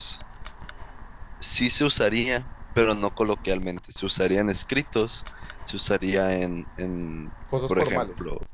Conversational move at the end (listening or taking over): listening